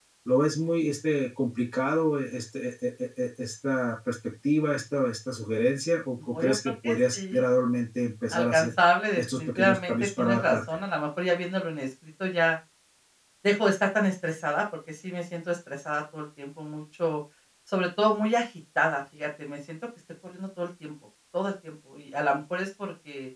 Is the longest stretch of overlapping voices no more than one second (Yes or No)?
No